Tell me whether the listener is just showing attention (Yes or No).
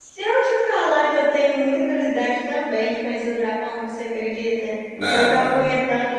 Yes